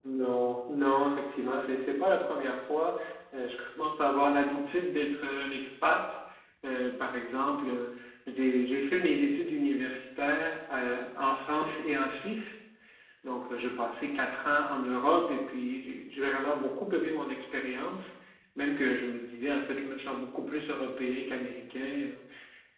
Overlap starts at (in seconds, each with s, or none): none